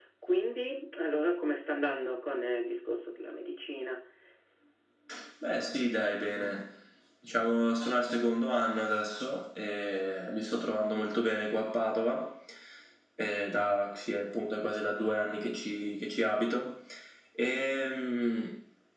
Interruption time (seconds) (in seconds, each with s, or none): none